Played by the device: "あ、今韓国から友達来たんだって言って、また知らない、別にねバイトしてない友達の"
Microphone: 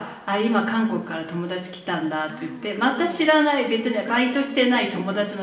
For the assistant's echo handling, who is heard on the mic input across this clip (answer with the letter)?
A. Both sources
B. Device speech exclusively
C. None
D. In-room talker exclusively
A